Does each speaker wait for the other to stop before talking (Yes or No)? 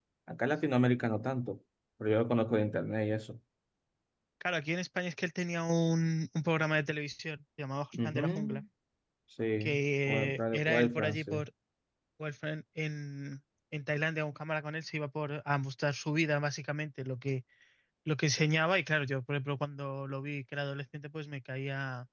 No